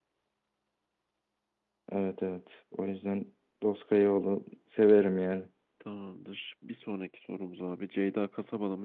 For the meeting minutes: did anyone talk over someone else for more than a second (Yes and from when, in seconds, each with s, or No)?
No